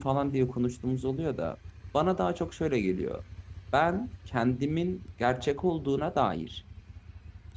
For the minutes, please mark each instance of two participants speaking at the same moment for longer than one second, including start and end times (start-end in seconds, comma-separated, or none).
none